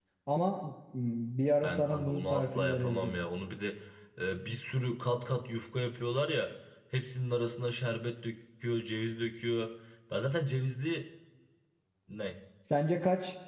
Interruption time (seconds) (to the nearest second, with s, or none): 2 s